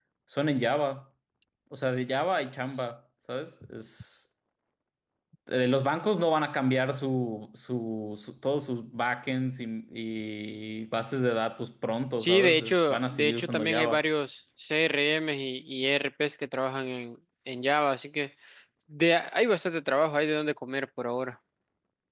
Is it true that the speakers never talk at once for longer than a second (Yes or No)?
No